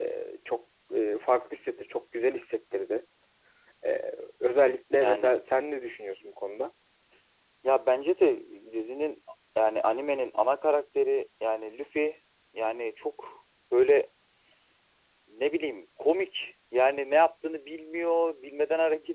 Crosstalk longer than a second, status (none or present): none